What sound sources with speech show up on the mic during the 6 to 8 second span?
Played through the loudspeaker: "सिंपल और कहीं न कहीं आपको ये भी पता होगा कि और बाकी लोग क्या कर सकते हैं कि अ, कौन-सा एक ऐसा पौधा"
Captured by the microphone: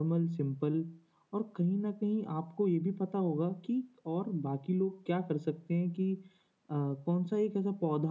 echo only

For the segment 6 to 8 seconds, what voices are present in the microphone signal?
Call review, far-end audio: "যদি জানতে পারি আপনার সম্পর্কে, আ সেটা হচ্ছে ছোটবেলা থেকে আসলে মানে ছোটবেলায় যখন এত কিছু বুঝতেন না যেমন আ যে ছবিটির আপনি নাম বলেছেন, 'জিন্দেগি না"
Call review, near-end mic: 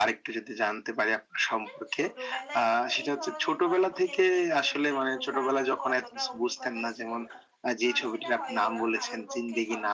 both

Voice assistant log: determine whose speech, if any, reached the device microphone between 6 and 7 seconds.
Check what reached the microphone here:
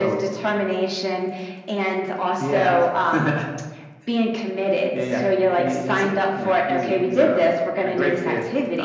echo only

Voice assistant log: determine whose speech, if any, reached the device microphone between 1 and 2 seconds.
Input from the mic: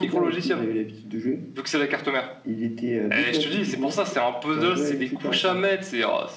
echo only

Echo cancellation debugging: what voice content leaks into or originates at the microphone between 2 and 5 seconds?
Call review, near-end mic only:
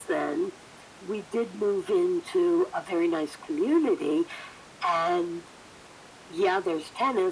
echo only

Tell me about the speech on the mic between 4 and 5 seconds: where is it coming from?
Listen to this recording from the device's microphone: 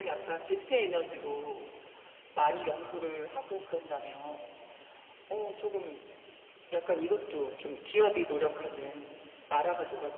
echo only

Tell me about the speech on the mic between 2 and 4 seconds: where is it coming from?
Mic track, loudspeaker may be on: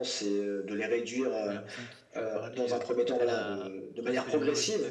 both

